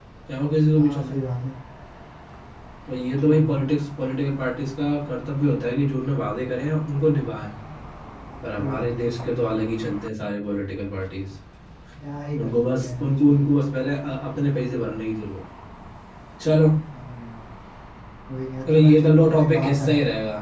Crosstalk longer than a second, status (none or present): present